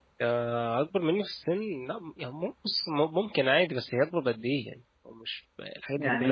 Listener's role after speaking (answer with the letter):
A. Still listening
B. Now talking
B